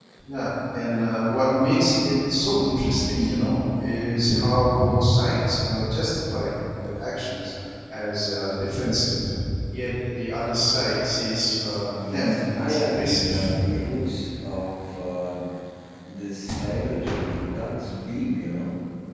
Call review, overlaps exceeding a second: present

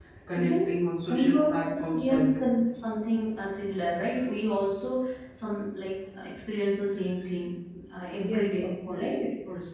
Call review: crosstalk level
present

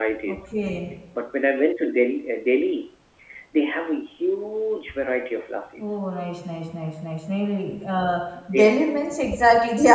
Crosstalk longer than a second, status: none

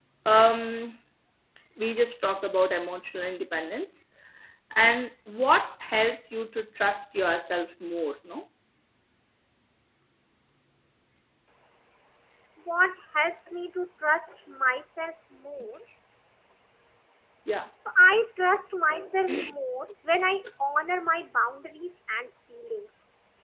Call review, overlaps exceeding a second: none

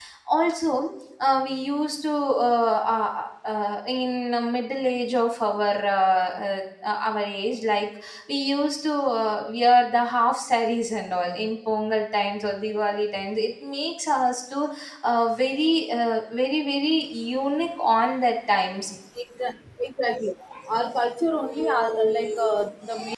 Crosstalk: none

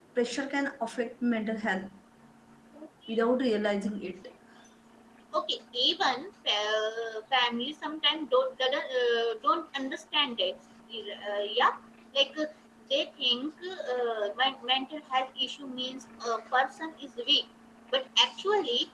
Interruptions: none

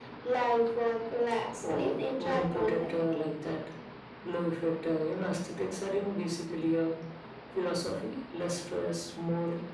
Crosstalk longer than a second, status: present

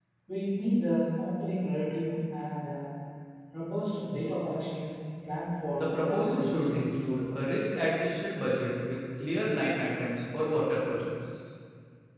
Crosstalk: present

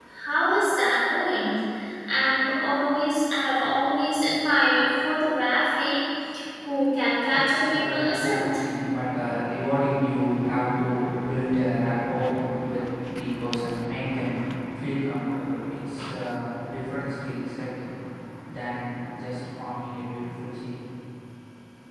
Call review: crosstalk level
present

